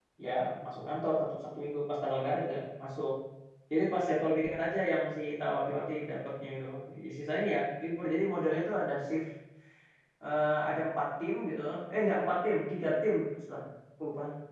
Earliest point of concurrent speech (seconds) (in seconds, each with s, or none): none